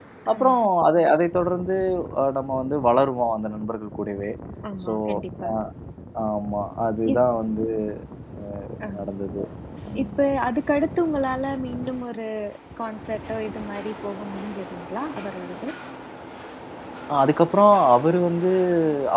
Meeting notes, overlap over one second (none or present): none